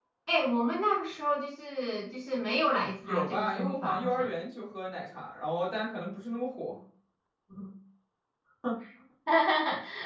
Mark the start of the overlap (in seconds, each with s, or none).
3.0 s